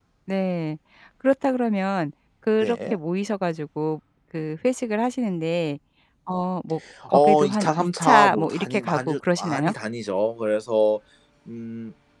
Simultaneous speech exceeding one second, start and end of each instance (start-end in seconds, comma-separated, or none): 7.1-9.7